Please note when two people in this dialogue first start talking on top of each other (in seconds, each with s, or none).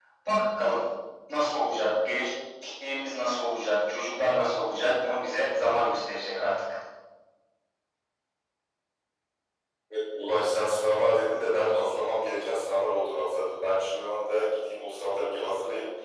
none